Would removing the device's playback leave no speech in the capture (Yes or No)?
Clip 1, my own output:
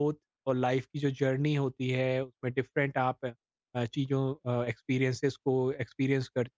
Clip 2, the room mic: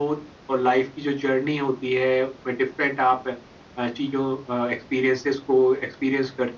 Yes